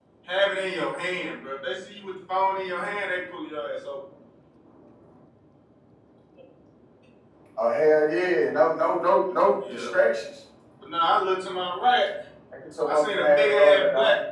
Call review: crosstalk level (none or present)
present